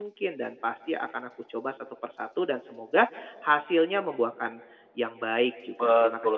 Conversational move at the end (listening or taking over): taking over